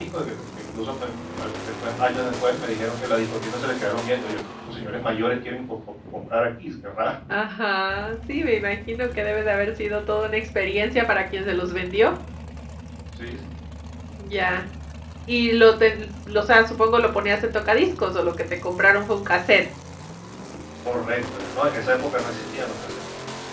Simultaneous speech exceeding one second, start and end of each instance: none

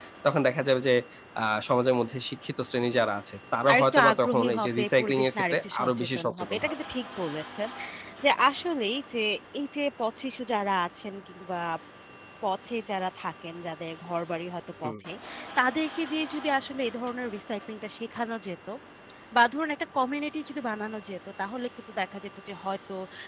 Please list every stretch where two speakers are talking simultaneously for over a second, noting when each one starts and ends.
3.7-6.7

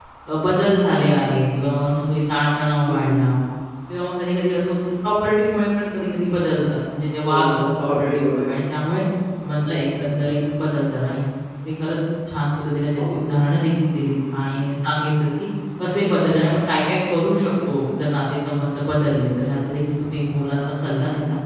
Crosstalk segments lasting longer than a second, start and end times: 7.2-8.5

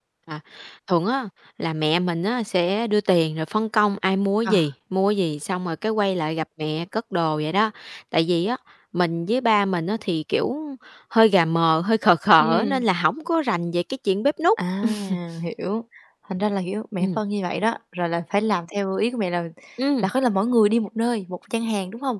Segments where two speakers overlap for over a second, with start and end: none

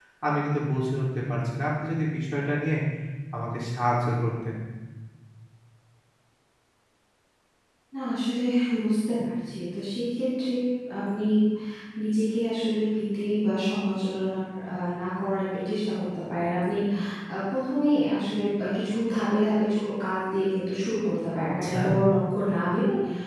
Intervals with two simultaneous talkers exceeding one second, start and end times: none

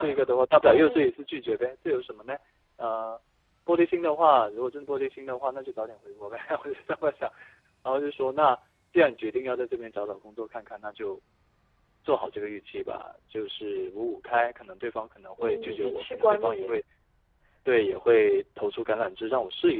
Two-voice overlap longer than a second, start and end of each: 15.4-16.8

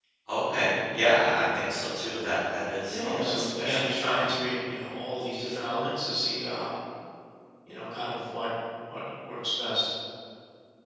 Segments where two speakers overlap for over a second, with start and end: 2.9-4.3

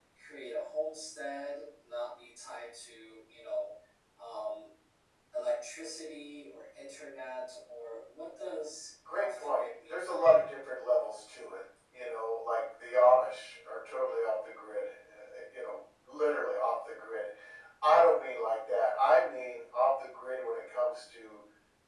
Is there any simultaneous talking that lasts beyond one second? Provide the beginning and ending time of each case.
9.2-10.5

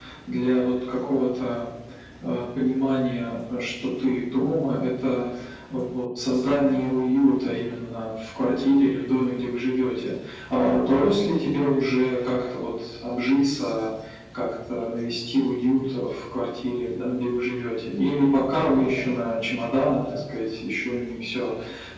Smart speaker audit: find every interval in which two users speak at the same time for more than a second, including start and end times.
none

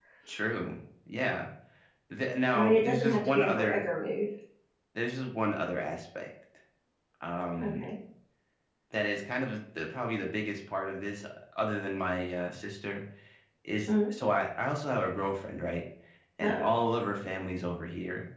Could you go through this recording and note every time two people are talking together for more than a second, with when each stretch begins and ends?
2.5-3.9

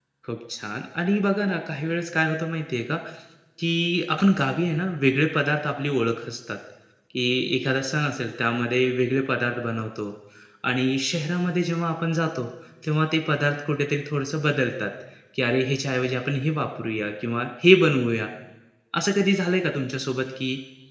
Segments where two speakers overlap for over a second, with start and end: none

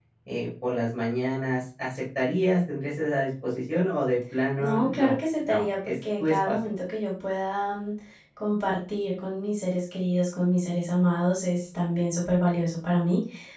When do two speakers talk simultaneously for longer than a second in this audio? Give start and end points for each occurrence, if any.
4.6-6.6

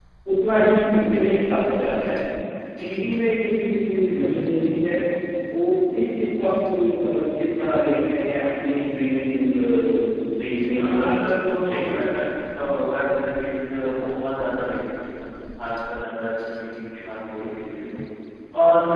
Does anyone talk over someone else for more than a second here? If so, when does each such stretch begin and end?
10.7-12.2

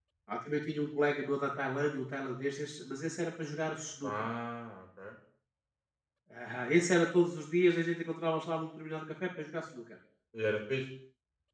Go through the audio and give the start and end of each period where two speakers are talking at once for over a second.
none

